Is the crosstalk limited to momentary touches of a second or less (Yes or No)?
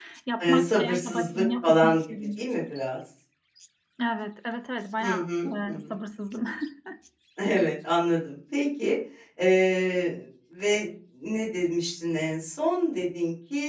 No